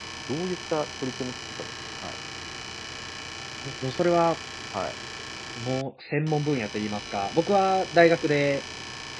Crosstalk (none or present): none